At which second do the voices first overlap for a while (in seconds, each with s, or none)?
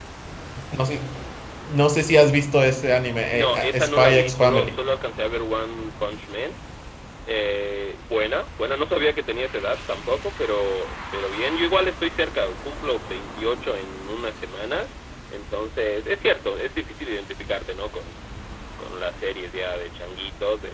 3.3 s